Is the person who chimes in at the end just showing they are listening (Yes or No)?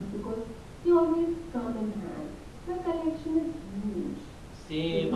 No